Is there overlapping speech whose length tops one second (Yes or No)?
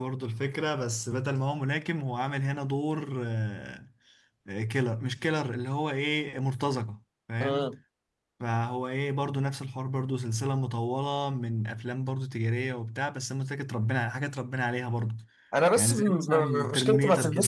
Yes